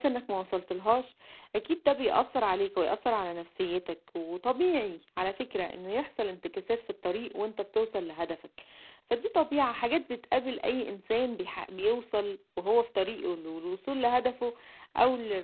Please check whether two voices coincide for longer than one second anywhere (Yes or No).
No